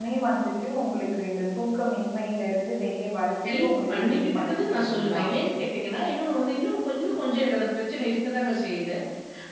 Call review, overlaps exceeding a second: present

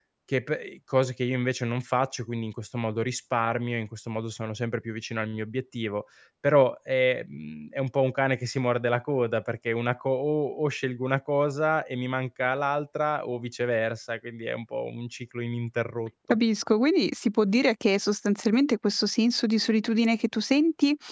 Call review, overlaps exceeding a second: none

